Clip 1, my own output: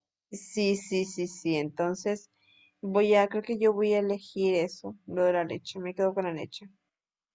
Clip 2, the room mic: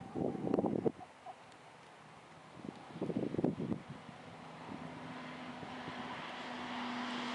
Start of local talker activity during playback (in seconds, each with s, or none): none